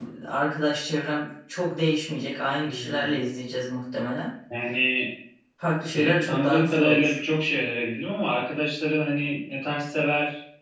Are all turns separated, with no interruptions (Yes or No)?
No